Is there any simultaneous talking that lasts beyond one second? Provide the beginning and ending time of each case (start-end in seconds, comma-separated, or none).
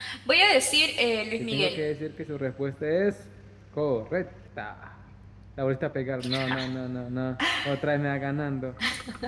none